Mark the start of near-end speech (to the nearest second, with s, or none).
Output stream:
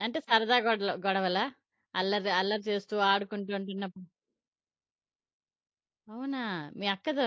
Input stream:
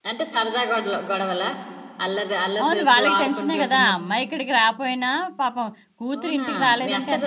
3 s